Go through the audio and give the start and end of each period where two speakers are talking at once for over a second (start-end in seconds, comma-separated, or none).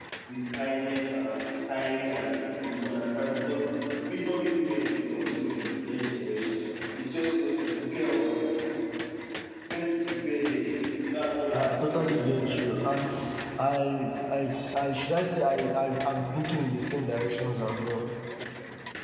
11.5-12.8